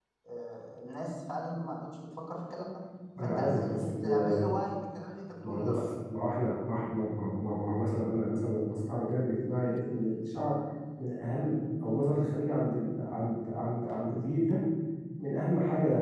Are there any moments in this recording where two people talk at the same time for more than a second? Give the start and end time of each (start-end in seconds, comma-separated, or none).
3.2-4.5